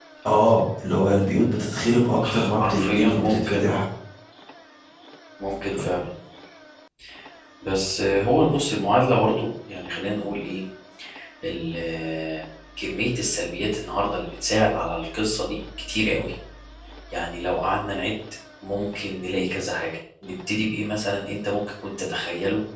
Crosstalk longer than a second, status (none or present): present